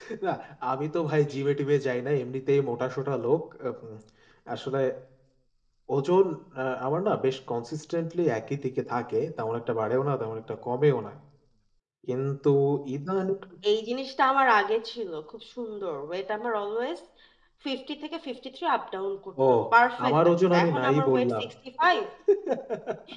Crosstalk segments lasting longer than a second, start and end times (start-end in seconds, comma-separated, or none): 20.1-21.3